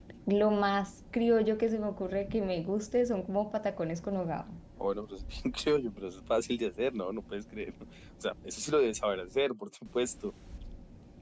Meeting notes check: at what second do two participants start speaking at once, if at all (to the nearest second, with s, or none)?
none